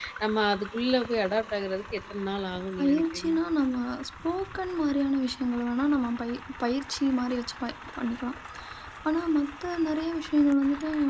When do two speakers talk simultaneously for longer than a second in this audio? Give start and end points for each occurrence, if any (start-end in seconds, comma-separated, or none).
none